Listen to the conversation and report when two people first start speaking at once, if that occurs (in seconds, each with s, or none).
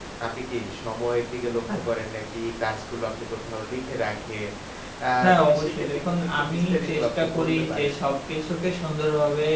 5.2 s